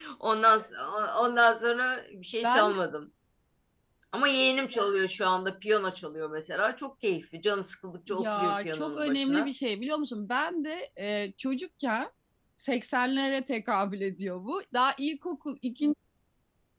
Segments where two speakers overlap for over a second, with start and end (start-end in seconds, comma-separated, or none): 8.1-9.5